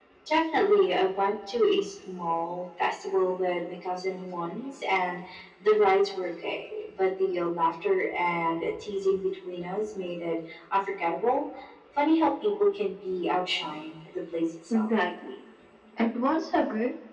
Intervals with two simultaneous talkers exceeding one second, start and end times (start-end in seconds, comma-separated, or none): none